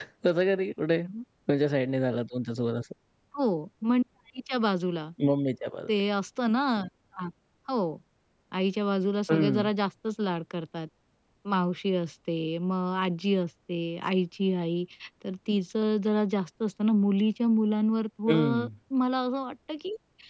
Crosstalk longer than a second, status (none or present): none